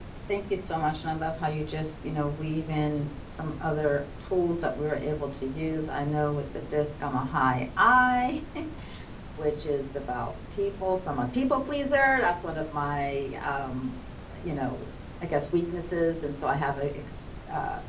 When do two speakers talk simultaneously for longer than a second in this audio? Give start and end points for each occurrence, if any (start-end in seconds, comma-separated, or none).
none